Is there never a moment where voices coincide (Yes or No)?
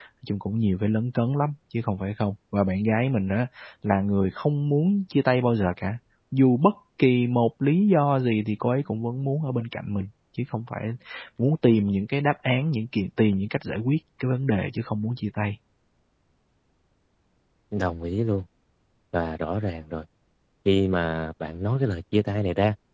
Yes